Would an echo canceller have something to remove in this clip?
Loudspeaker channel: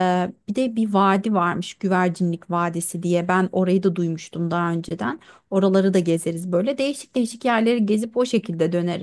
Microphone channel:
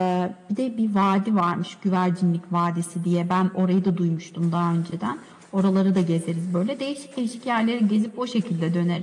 Yes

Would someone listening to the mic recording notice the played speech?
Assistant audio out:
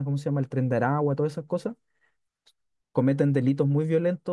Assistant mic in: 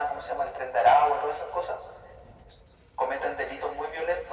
Yes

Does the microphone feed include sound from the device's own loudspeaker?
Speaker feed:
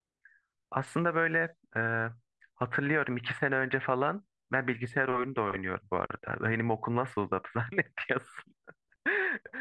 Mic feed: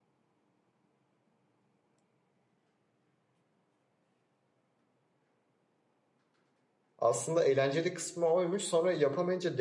No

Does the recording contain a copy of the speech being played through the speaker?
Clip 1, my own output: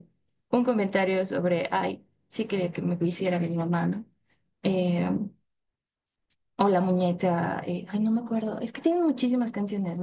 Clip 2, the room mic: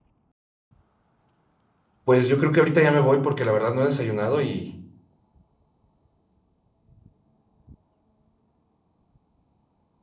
No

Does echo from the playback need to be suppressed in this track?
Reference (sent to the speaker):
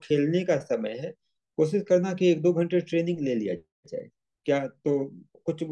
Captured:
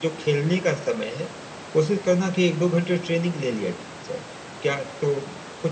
Yes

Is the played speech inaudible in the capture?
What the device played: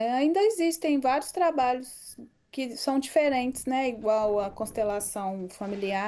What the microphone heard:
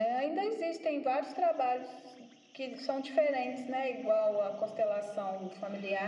No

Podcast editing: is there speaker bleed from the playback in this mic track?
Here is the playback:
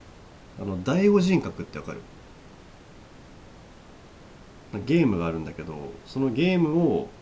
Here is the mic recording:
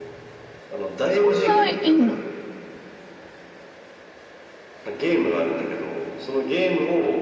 Yes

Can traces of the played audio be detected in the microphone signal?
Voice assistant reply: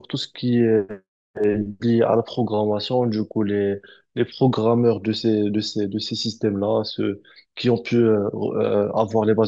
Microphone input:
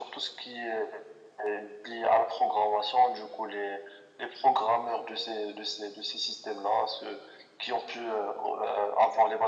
Yes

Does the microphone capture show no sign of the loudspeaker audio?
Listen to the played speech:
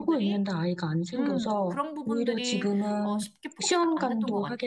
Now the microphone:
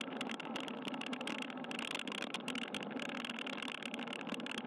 Yes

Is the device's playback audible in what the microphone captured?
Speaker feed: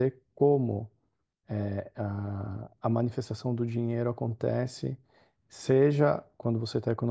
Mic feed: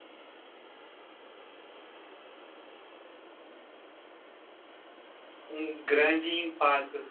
No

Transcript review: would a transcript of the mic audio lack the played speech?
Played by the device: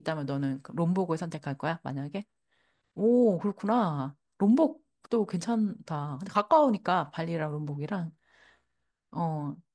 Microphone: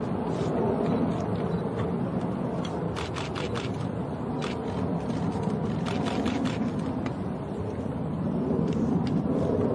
Yes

